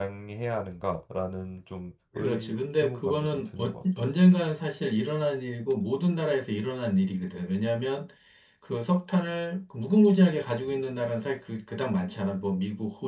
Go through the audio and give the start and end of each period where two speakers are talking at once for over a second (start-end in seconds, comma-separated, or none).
2.2-4.0